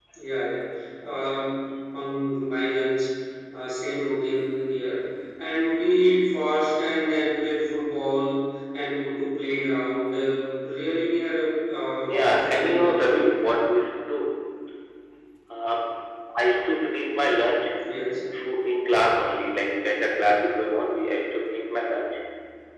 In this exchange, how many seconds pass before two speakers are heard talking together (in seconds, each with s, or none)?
12.0 s